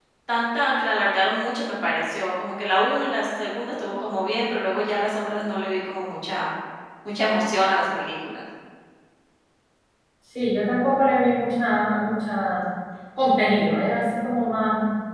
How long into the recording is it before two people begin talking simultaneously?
none

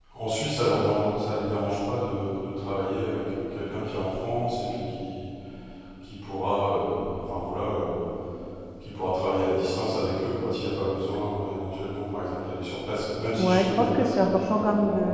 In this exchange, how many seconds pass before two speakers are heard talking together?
13.4 s

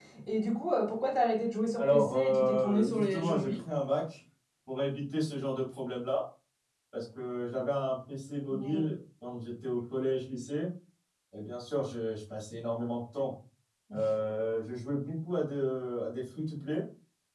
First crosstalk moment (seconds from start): 1.8 s

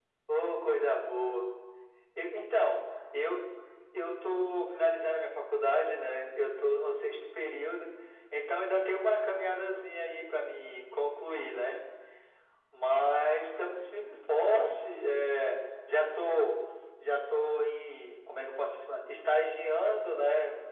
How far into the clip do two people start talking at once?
none

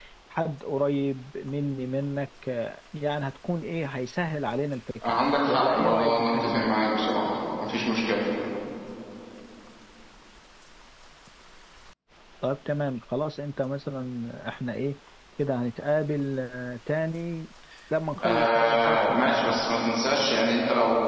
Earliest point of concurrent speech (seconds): 5.0 s

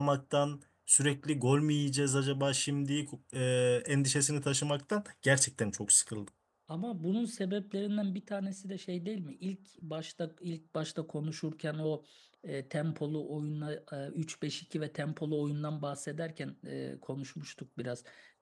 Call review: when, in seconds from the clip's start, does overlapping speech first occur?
none

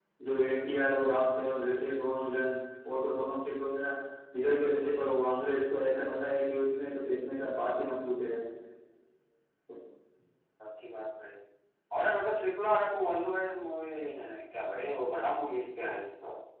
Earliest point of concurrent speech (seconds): none

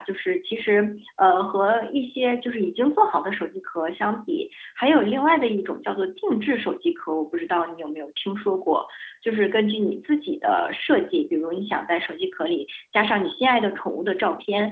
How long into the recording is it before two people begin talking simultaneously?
none

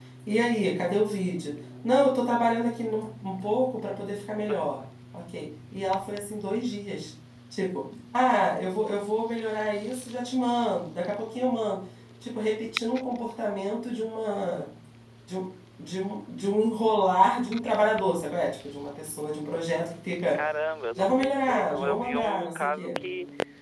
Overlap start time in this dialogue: 21.0 s

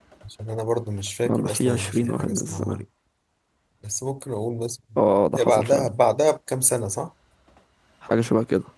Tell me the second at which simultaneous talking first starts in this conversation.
1.2 s

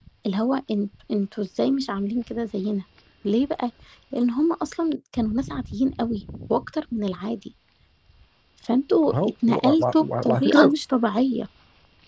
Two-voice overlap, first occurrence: 9.1 s

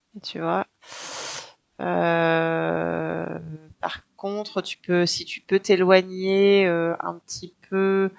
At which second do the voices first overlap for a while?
none

